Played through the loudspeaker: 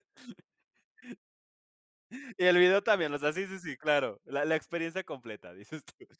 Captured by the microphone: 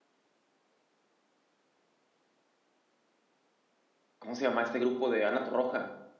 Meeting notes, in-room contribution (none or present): present